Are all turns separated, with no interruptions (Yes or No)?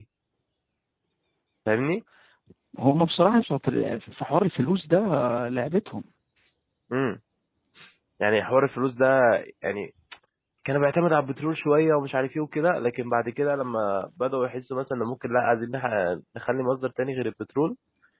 Yes